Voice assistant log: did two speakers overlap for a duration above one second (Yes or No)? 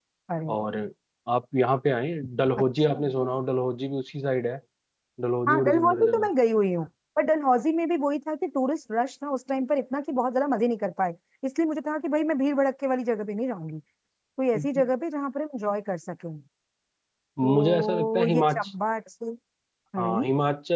Yes